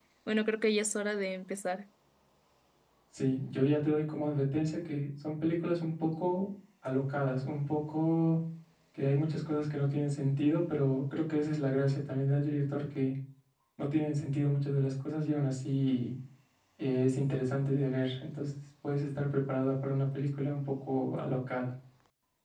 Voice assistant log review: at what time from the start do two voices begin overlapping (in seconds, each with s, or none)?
none